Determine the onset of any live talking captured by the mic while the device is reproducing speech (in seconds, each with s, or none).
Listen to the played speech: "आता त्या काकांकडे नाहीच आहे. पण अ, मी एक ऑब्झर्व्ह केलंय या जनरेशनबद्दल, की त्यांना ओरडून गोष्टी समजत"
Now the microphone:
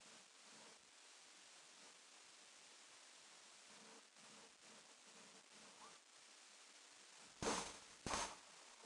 none